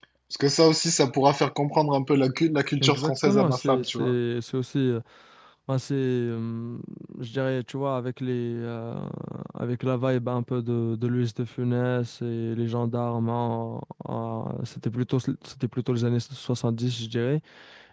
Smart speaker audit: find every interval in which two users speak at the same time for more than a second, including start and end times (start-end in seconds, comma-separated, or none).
2.8-4.1